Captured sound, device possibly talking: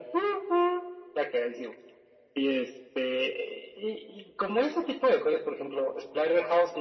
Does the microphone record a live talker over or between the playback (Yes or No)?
No